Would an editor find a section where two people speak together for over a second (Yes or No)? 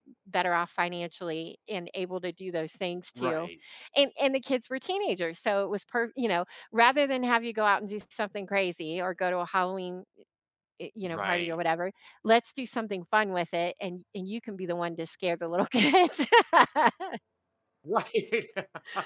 No